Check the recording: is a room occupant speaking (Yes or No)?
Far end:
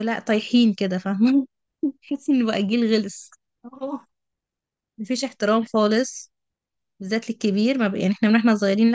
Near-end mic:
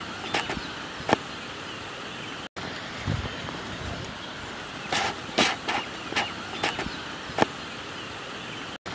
No